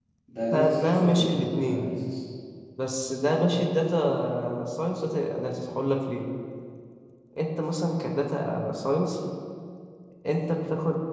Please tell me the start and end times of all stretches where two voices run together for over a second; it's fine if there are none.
0.5-1.9

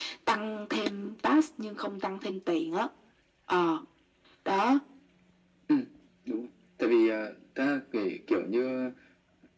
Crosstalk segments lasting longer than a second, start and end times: none

